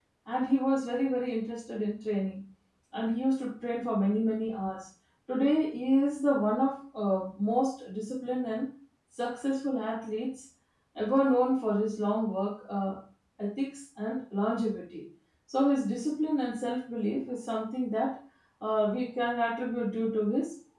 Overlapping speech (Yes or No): No